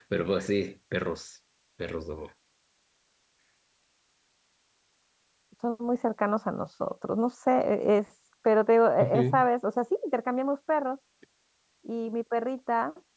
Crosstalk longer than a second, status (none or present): none